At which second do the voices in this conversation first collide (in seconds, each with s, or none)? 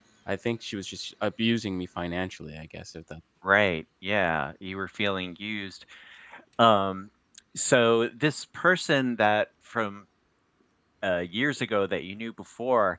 none